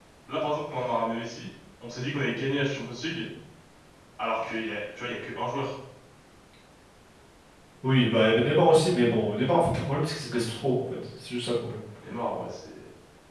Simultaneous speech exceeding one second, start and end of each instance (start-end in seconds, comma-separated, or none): none